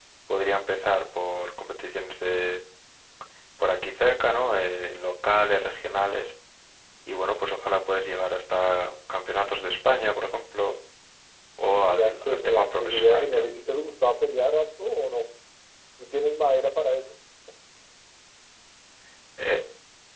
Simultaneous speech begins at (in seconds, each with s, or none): 11.9 s